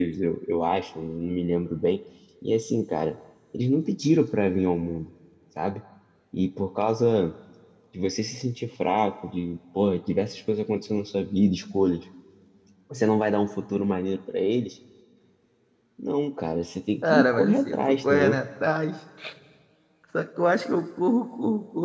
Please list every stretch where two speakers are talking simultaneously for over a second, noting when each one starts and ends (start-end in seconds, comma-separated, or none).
17.0-18.4